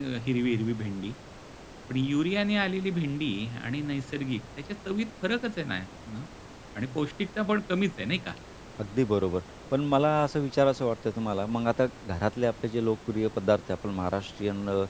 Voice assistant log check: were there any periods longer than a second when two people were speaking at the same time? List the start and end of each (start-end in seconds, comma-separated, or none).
none